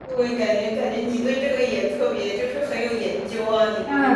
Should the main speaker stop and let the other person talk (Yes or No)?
Yes